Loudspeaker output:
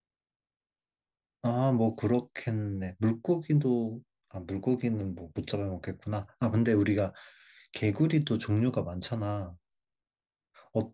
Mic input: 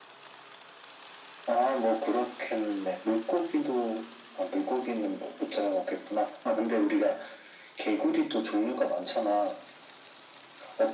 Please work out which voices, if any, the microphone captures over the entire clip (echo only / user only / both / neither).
echo only